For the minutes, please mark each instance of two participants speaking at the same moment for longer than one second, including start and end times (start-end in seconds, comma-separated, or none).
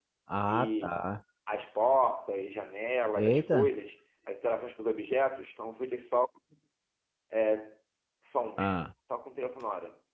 none